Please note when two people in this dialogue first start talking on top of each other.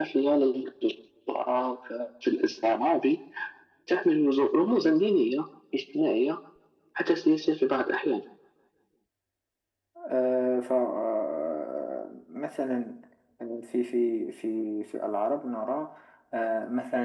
none

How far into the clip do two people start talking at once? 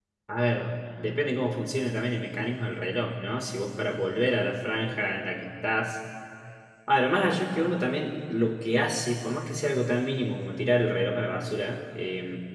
none

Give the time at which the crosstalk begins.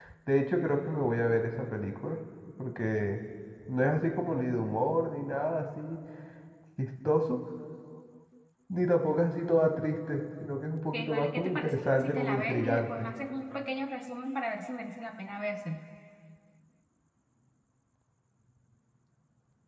10.9 s

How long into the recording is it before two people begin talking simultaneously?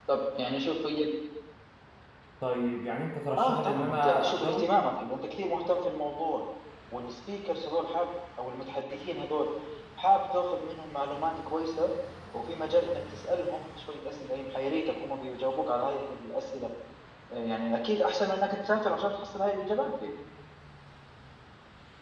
3.4 s

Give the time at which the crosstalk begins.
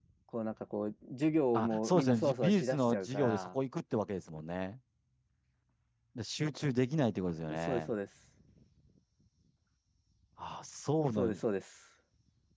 1.5 s

